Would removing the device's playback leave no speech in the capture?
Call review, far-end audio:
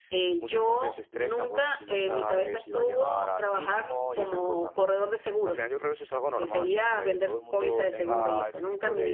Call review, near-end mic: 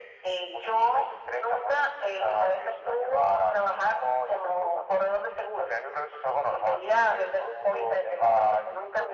Yes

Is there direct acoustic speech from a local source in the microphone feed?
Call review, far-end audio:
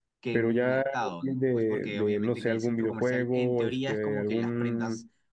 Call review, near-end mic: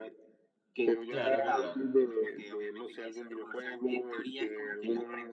Yes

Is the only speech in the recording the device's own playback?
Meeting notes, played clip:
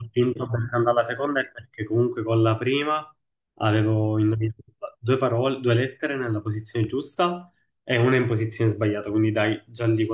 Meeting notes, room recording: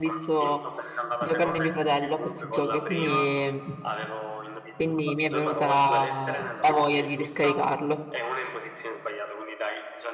No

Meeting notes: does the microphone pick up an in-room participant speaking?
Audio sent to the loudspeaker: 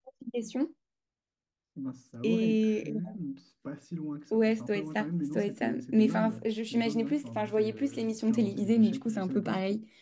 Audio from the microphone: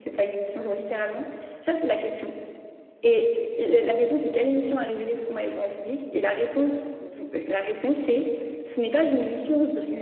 Yes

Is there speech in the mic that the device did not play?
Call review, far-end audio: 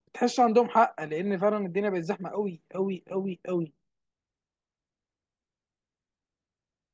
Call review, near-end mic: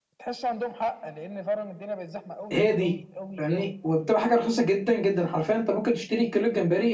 Yes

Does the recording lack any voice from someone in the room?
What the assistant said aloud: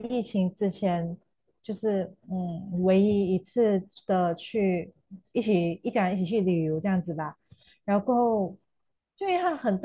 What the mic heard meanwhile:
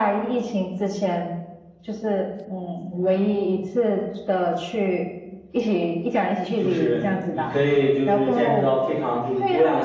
No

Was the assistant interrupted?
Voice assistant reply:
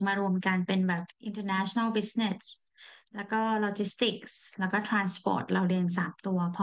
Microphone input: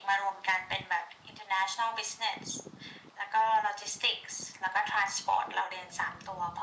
No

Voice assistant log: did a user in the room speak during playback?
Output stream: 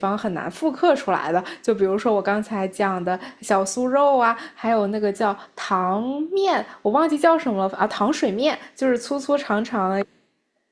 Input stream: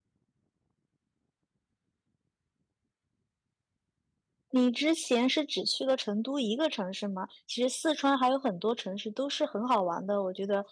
Yes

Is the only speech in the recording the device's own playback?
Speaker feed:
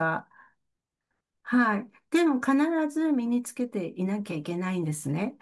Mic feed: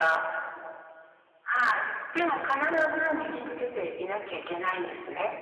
Yes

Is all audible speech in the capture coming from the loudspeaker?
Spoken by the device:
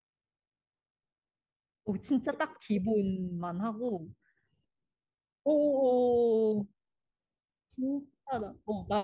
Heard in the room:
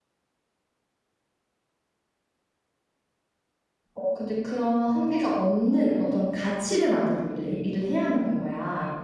No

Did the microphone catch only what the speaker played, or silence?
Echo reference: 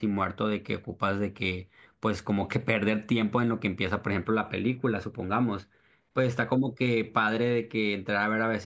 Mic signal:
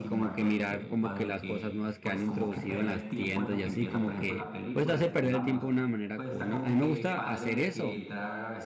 No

